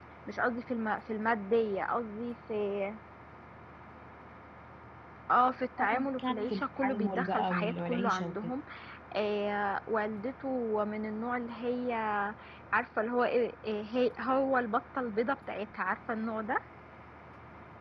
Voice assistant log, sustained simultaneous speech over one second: present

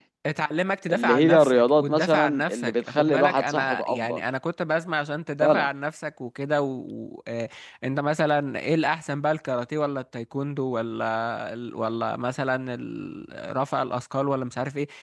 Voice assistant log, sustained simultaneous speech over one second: present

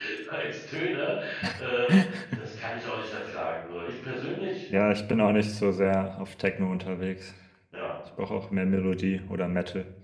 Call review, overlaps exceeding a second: none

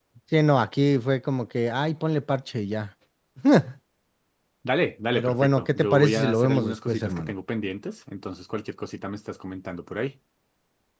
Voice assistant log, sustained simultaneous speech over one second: present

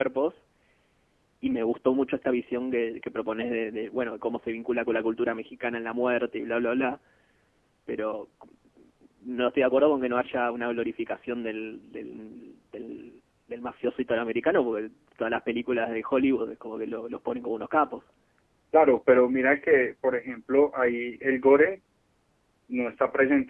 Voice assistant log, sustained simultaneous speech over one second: none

